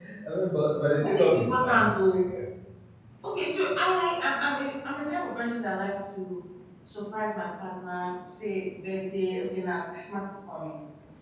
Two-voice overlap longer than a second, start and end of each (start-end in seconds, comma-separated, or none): 1.0-2.3